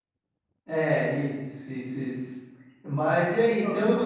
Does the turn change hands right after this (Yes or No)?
No